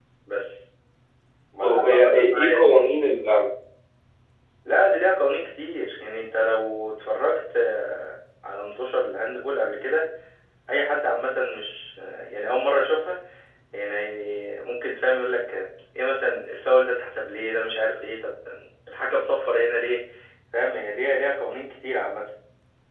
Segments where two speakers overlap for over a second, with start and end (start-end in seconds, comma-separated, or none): 1.6-2.8